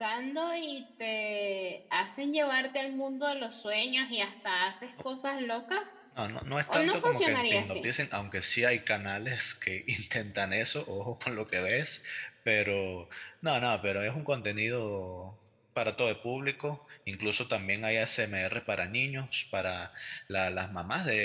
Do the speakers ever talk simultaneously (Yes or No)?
Yes